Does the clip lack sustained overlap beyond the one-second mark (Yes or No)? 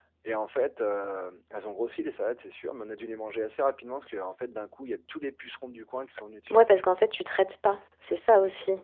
Yes